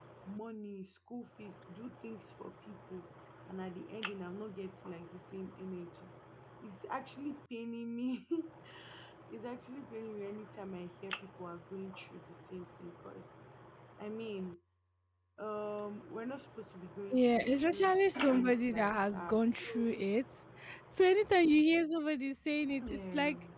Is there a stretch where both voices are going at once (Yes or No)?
Yes